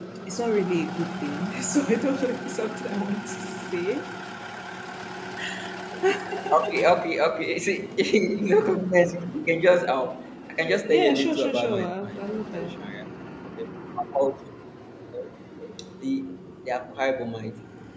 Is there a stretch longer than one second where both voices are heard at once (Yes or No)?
Yes